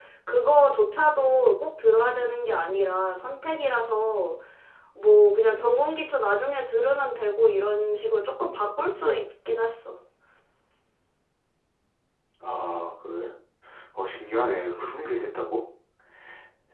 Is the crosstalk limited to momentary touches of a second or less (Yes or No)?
Yes